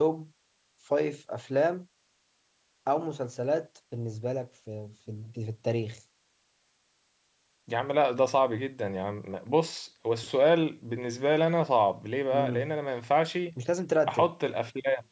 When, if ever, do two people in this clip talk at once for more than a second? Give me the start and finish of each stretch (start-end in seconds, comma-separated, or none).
none